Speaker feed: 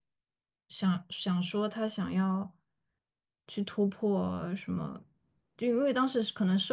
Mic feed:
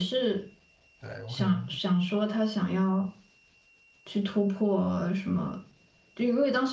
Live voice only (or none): 对，我可能